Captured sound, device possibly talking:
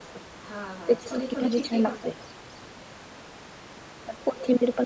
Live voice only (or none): हा हा थोडे थोडे फिके पडतात